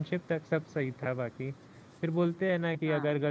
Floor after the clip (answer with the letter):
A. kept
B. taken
A